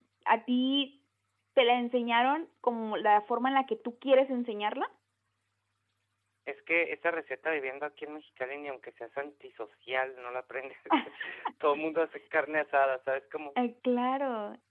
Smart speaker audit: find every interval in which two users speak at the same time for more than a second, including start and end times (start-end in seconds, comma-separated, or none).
none